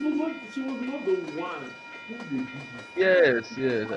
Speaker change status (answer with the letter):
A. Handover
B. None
A